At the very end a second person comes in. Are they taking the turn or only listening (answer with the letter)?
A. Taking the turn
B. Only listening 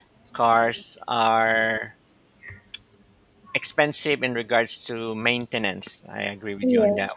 B